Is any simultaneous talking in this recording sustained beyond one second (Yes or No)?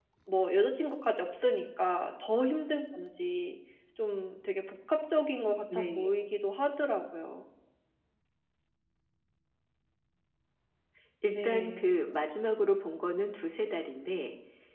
No